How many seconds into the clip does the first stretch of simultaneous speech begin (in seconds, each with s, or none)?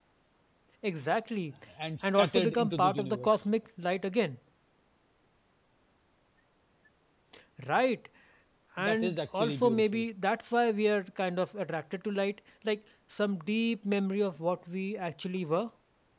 2.0 s